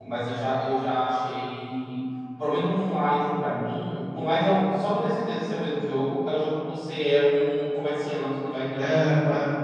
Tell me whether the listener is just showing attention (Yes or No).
Yes